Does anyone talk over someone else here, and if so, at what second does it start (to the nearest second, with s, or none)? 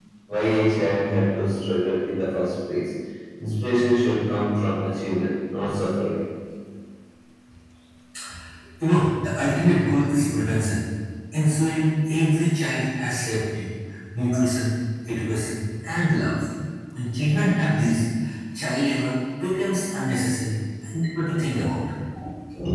none